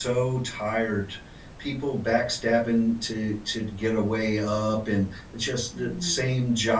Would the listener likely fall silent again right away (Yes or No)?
Yes